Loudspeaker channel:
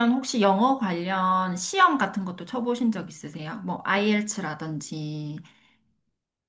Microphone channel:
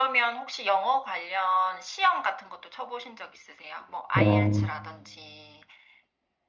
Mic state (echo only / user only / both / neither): both